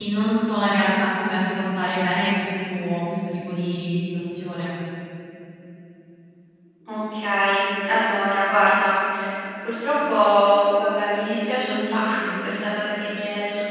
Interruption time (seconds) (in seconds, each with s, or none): none